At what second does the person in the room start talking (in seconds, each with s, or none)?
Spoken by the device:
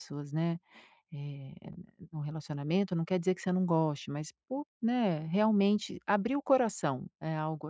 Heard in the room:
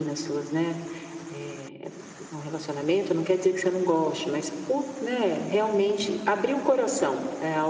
none